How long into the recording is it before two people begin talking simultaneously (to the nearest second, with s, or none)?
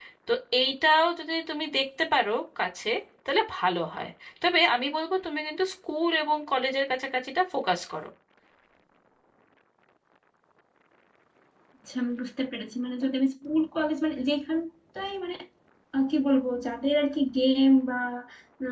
none